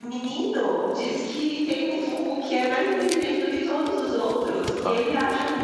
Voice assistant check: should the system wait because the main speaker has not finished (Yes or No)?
Yes